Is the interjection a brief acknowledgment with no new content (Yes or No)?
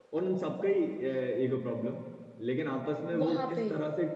Yes